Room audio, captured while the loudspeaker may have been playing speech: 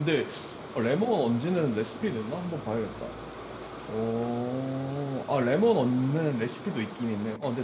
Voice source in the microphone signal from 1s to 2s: user only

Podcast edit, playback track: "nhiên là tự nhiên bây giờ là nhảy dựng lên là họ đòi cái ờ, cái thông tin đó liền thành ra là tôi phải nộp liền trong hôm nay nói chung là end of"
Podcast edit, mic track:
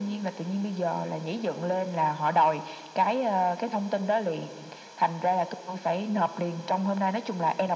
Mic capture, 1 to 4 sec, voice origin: echo only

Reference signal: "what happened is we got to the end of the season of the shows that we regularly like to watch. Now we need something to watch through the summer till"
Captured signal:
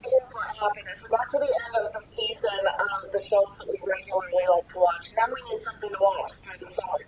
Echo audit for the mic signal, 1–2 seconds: echo only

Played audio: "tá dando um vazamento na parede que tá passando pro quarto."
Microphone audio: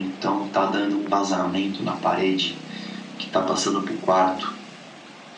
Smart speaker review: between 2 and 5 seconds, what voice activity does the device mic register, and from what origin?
echo only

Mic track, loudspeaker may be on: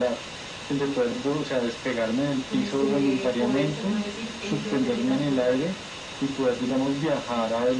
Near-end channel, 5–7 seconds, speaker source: both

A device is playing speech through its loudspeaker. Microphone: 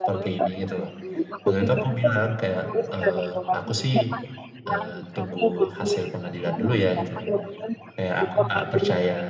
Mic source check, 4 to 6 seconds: both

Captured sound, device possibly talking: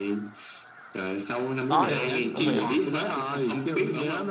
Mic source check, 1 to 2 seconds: both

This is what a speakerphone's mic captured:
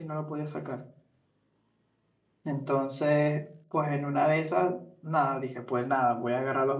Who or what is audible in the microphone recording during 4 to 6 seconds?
user only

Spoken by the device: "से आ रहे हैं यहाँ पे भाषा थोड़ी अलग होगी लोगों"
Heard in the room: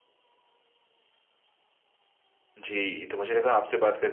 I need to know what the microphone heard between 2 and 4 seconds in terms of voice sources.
user only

